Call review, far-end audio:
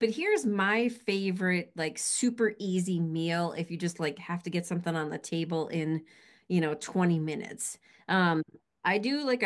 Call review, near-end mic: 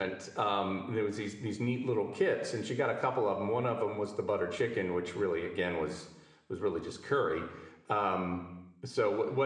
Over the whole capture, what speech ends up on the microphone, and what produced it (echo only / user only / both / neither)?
user only